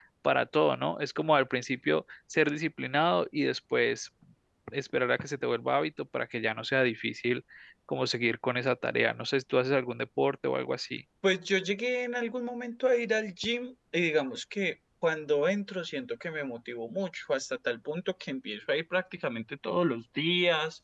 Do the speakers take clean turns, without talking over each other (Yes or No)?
Yes